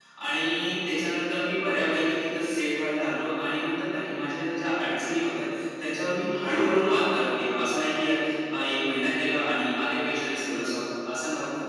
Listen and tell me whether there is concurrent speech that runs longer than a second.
No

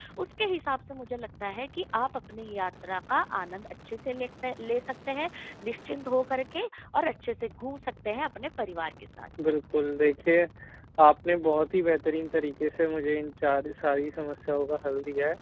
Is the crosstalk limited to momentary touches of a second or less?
Yes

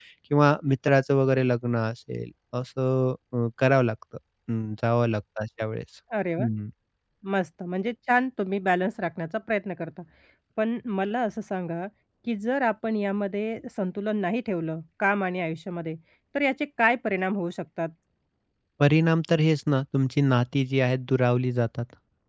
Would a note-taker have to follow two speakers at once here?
No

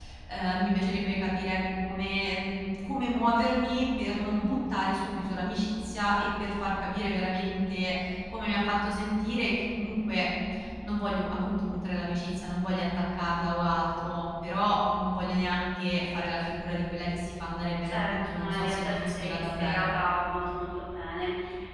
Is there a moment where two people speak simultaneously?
Yes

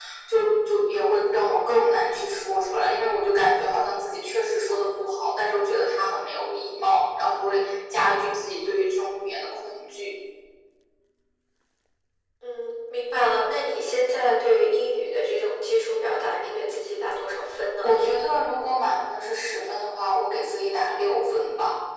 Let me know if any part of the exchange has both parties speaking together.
No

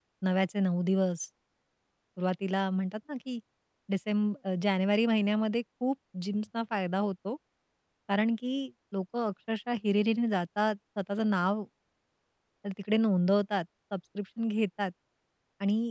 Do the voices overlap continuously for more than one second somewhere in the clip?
No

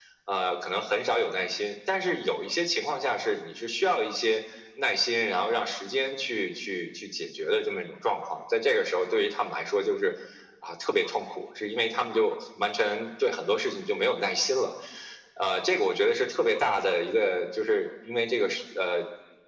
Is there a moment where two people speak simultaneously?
No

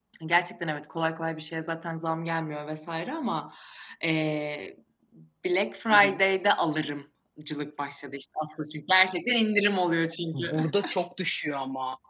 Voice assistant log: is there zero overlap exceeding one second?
Yes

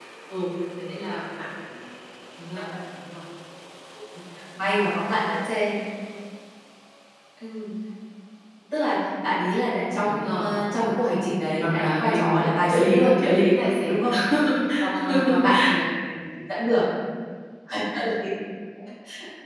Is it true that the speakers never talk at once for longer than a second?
No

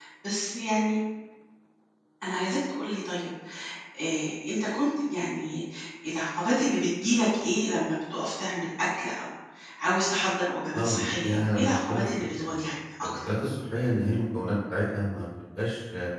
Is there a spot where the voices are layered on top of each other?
Yes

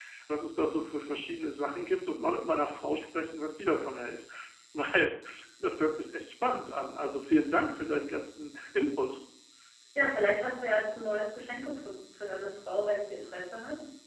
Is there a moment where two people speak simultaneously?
No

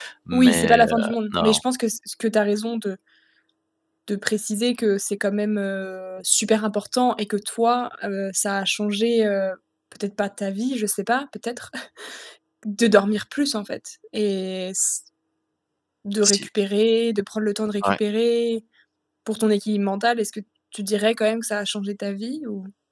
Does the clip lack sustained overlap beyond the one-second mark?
No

